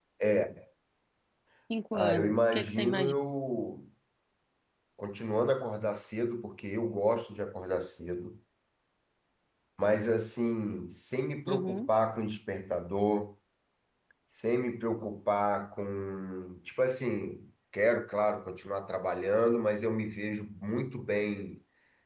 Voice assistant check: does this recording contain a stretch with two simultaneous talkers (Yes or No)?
Yes